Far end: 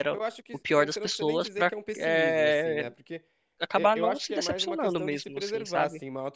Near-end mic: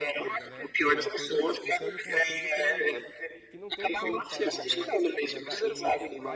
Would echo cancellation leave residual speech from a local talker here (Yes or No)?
Yes